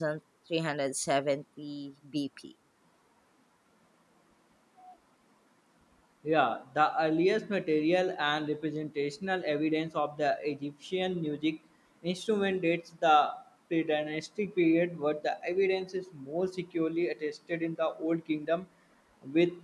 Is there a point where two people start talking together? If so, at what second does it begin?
none

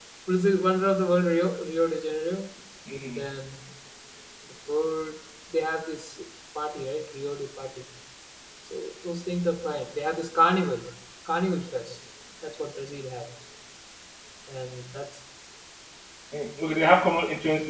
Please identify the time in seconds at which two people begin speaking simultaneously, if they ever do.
none

